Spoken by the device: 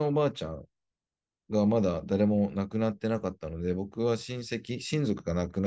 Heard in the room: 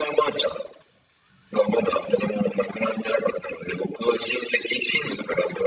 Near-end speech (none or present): none